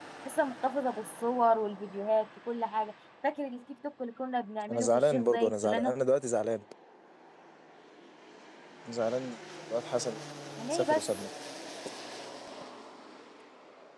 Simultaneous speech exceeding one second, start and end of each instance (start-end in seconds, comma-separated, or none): 4.7-5.9